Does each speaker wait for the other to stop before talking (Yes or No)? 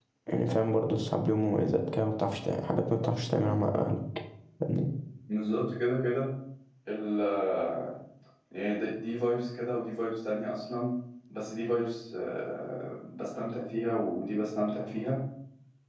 Yes